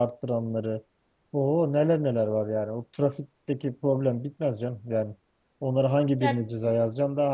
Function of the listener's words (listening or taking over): listening